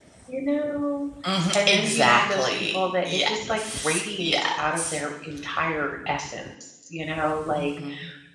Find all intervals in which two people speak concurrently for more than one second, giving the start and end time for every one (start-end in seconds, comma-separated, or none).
1.5-5.0